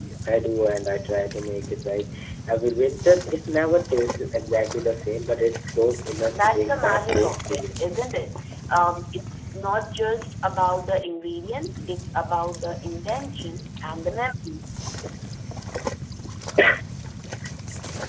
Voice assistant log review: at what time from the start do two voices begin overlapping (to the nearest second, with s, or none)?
6 s